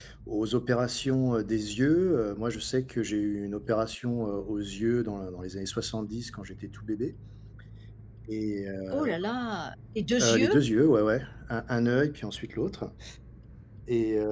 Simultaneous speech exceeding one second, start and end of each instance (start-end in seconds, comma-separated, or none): none